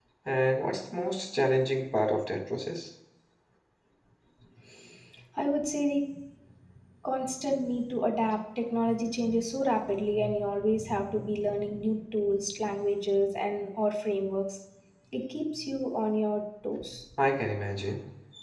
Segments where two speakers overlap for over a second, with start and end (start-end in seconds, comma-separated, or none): none